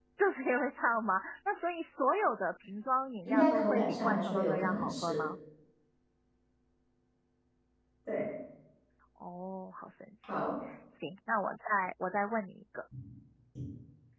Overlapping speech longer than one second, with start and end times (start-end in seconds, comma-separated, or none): 3.2-5.2